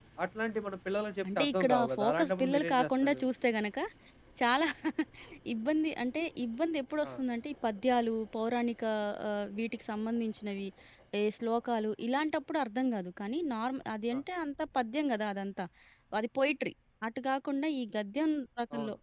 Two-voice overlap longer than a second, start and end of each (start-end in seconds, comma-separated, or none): 1.4-3.2